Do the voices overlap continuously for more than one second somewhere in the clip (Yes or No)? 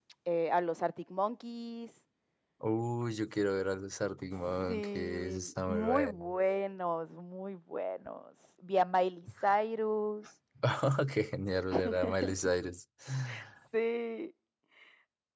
Yes